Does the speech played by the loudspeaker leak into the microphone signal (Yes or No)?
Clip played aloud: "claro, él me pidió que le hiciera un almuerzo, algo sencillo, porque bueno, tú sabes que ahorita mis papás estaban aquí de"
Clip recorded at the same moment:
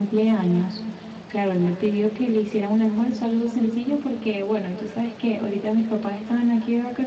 Yes